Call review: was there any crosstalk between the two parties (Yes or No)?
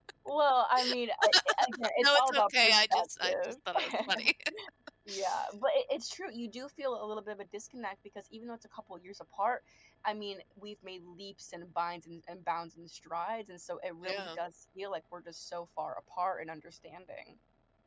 Yes